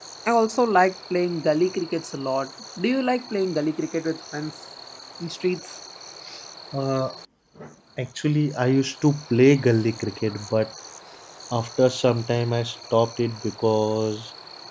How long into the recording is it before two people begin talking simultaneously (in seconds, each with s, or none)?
none